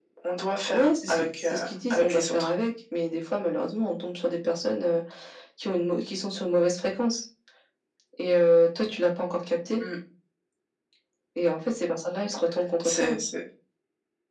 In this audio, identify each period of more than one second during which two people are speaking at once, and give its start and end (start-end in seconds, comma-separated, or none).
0.7-2.5